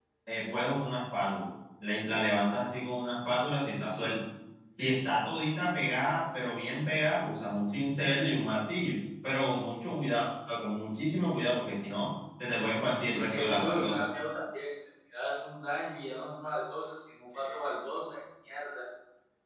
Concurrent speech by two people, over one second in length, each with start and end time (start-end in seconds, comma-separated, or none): 12.5-14.0